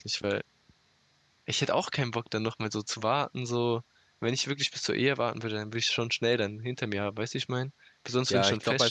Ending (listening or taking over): taking over